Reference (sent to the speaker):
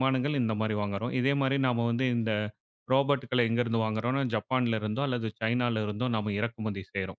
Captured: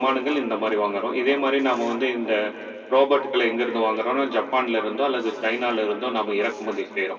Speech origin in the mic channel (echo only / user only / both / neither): echo only